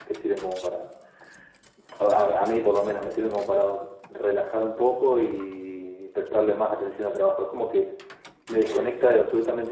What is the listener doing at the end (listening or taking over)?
listening